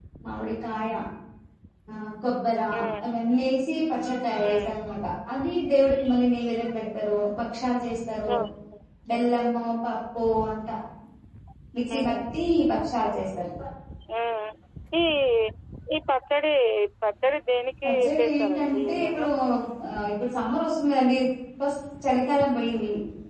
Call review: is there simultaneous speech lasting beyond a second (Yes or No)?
Yes